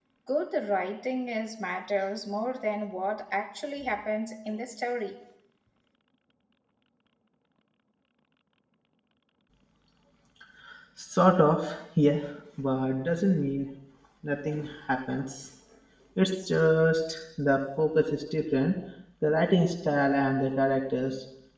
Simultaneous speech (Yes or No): No